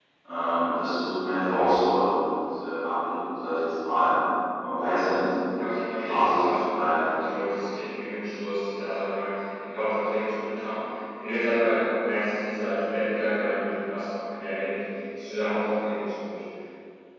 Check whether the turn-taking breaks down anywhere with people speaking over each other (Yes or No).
Yes